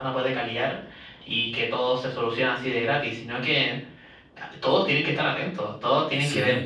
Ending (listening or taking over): listening